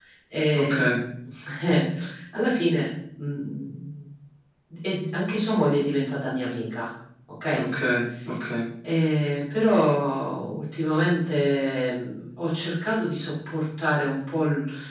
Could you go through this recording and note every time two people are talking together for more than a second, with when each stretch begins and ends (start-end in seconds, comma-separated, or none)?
none